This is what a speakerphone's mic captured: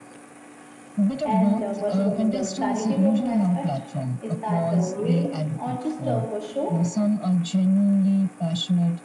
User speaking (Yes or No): Yes